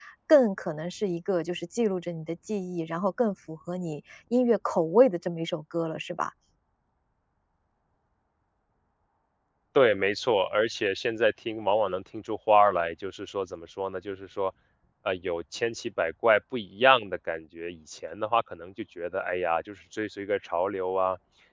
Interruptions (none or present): none